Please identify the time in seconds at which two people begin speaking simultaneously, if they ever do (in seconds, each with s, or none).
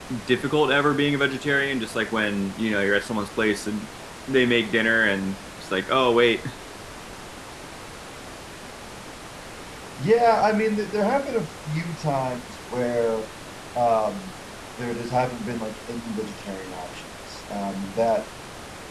none